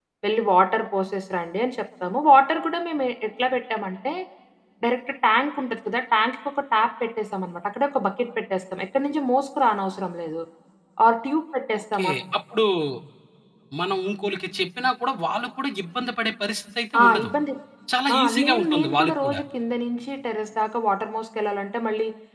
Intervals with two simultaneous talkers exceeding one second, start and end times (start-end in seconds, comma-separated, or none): 18.1-19.4